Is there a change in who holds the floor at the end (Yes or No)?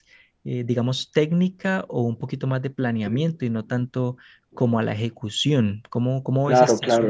Yes